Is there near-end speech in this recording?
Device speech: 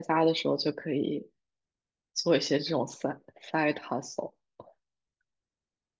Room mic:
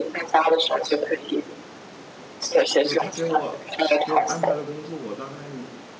Yes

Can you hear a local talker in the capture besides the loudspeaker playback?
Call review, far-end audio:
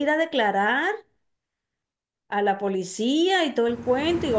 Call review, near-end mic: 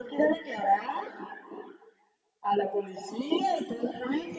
No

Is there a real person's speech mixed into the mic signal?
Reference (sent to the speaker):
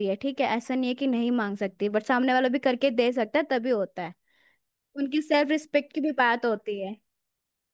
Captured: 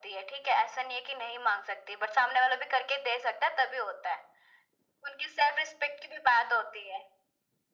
No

